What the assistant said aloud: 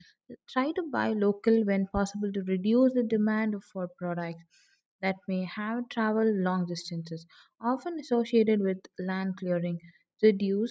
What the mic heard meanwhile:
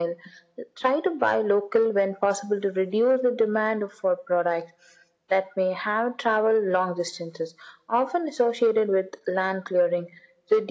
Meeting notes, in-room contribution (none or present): none